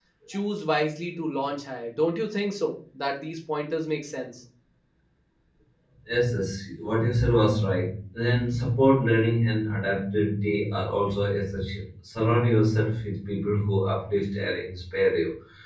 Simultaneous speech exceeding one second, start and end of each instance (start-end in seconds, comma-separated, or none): none